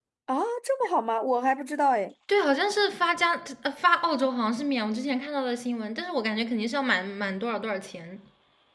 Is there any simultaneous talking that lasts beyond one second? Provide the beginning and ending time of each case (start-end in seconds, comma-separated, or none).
none